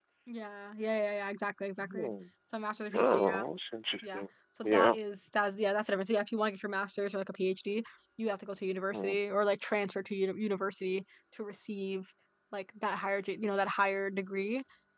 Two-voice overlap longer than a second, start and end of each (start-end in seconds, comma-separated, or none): none